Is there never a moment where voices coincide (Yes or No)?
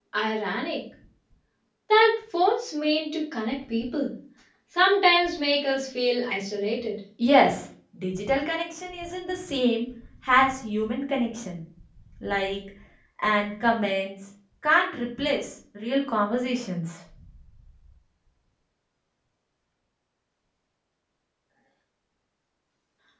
Yes